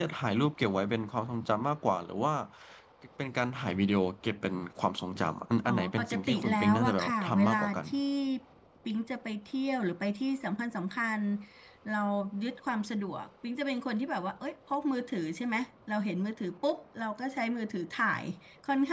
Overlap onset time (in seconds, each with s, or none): 5.6 s